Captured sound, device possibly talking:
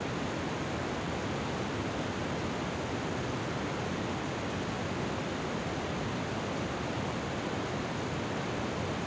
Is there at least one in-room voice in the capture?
No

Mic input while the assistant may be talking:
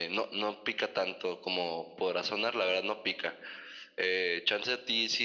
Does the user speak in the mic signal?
No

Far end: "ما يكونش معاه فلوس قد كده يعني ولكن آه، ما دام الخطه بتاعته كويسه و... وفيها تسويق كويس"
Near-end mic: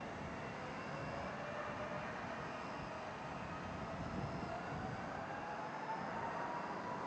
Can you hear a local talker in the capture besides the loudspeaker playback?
No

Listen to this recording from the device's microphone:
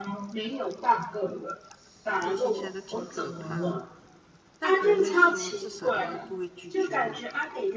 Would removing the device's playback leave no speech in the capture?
No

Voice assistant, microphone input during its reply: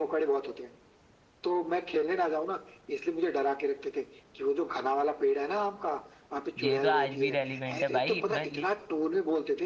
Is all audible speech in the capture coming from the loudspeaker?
No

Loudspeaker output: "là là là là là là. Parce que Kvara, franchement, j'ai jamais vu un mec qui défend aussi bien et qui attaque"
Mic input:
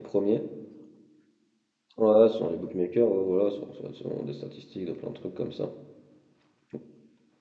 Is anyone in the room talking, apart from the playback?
Yes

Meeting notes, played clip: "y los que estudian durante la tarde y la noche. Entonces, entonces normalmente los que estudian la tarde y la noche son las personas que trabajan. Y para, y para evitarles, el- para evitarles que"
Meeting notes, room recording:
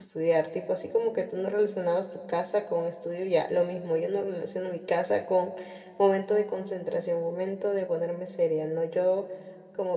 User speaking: Yes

